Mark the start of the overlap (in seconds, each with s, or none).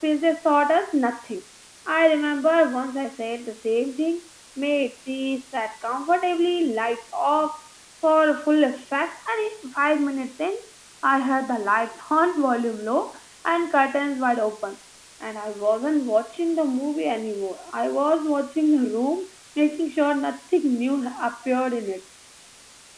none